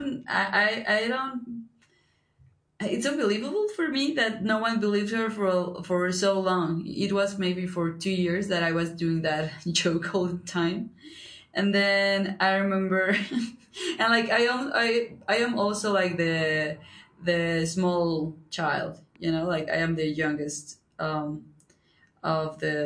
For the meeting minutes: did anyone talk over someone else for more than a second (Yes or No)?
No